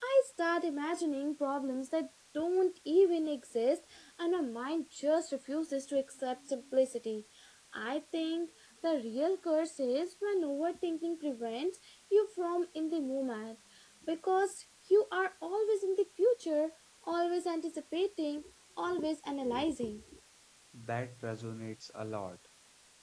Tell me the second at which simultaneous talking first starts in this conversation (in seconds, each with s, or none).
none